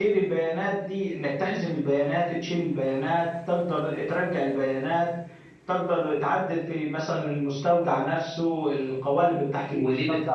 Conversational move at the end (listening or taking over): taking over